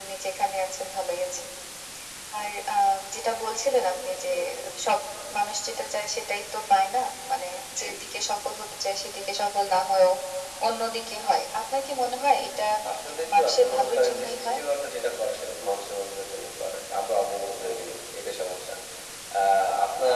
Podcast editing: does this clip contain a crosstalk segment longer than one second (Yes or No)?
Yes